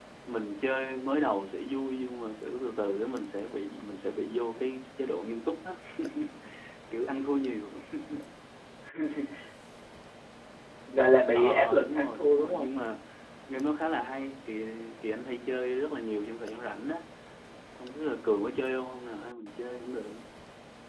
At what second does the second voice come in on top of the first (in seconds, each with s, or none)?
11.3 s